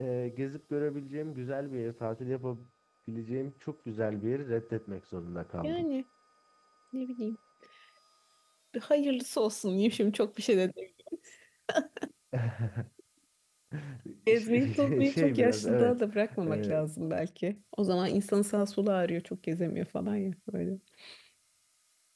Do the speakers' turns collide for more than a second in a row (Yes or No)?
Yes